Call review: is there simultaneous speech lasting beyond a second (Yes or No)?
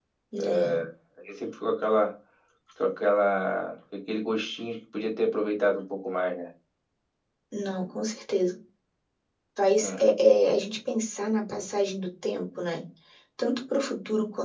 No